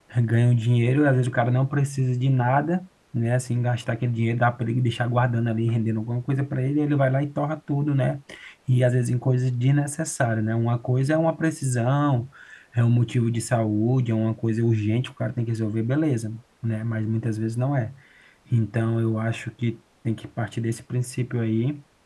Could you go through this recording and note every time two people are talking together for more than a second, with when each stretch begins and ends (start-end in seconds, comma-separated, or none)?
none